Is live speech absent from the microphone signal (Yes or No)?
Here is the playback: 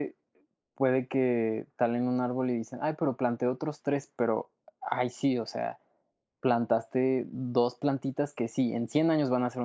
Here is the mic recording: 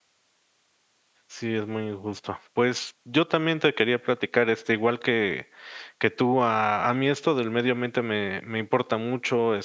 No